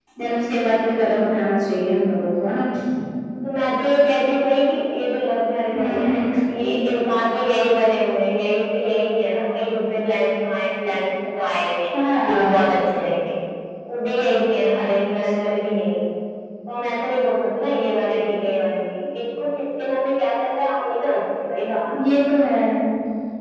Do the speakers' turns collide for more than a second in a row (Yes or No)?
No